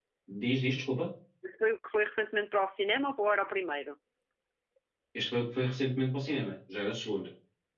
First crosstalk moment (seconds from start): none

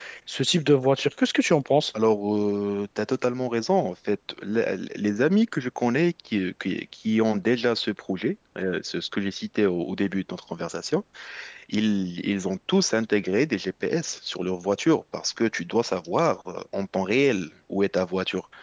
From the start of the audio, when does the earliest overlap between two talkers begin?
none

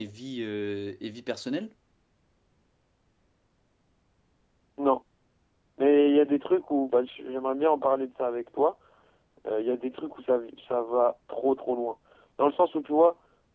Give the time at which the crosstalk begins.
none

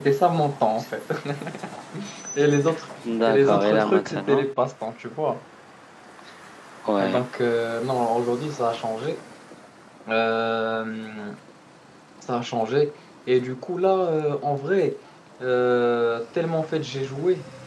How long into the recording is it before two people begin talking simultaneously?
3 s

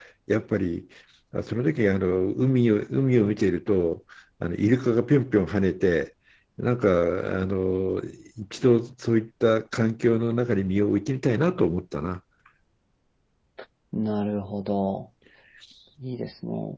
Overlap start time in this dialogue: none

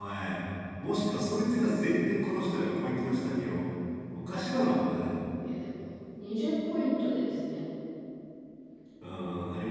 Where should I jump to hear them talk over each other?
none

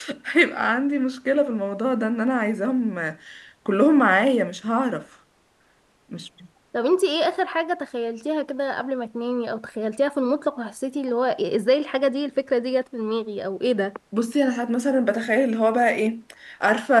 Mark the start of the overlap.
none

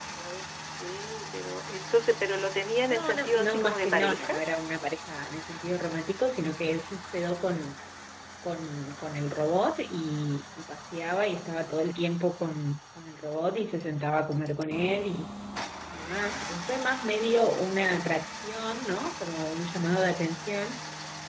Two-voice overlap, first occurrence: 3 s

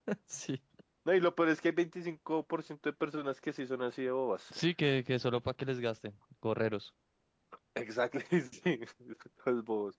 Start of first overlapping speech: none

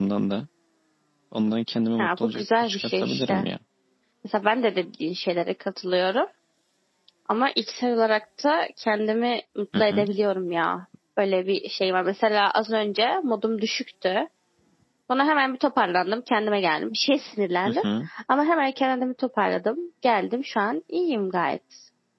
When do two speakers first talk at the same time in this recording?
2 s

